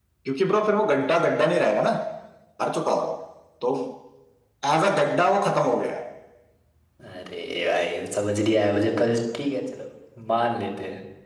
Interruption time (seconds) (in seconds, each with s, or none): none